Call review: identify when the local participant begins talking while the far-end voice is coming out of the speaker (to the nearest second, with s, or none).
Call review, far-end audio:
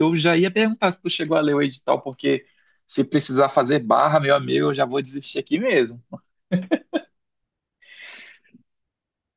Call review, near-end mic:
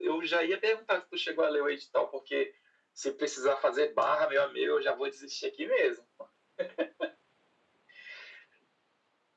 none